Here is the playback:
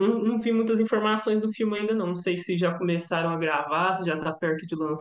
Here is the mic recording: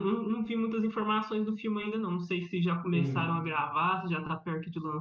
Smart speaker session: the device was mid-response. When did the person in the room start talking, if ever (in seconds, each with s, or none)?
2.9 s